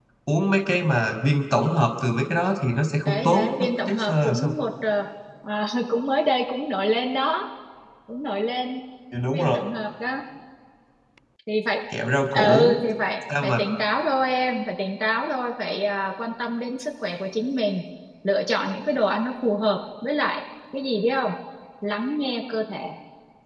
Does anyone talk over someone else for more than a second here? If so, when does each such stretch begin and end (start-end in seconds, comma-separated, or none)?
3.0-4.5